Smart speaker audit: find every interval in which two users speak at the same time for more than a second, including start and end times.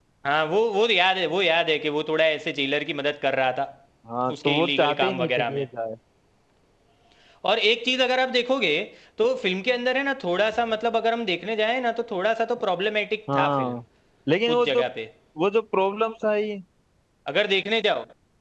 4.4-5.6

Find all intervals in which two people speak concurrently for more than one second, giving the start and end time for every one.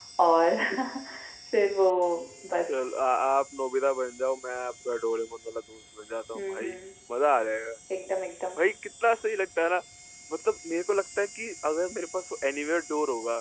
none

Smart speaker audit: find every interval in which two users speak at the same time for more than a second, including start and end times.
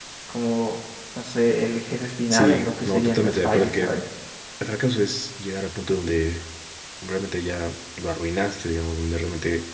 2.3-3.8

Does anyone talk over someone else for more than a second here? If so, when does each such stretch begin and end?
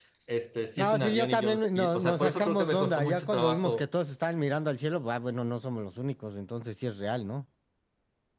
0.8-3.9

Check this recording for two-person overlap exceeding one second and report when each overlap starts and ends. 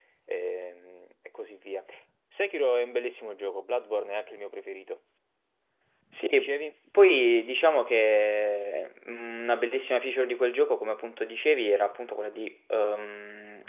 none

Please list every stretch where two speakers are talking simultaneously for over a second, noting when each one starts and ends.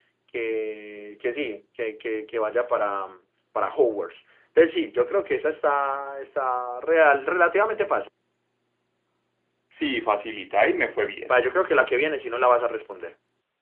none

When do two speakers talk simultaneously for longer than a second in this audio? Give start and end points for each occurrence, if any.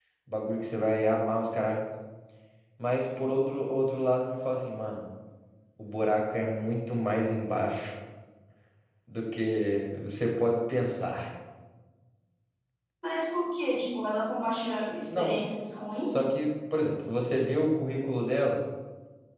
none

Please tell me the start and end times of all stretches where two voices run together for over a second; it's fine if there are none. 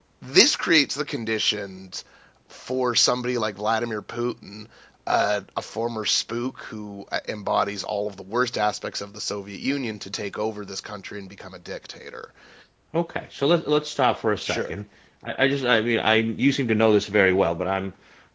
none

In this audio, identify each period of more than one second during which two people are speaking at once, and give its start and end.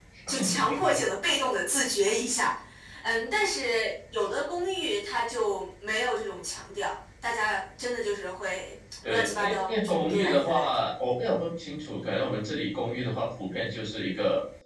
9.1-10.7

